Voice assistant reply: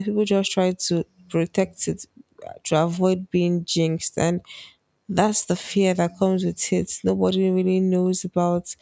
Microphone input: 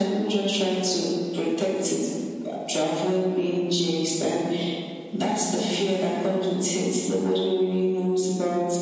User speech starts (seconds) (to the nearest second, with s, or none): none